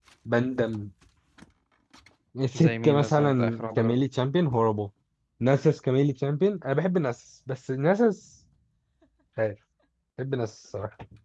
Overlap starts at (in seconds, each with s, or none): 2.5 s